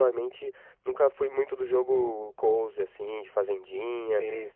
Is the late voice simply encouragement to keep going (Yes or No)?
Yes